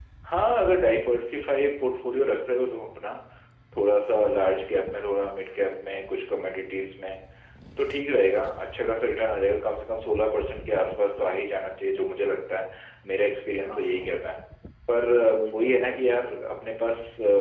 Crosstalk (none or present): present